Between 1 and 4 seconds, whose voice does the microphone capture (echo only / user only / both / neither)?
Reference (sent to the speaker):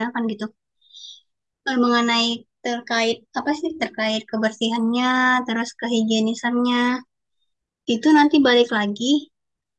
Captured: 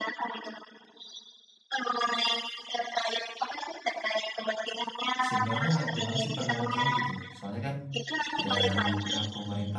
echo only